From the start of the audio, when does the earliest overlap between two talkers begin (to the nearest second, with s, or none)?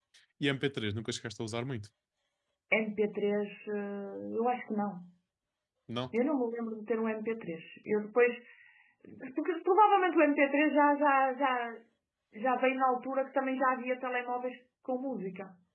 none